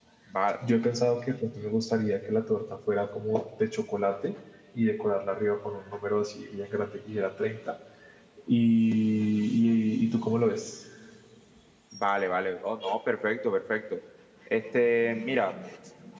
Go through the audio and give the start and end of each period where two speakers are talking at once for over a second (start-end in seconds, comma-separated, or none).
none